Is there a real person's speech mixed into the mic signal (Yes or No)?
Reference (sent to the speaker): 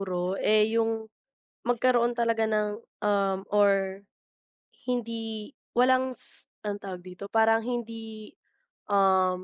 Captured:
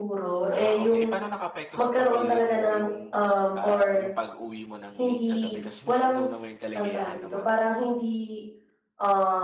Yes